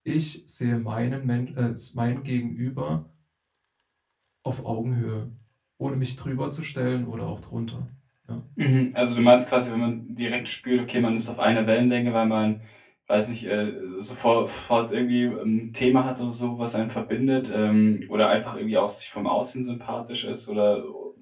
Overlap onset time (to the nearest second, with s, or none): none